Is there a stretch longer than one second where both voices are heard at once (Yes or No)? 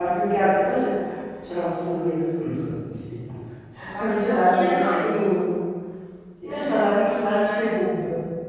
Yes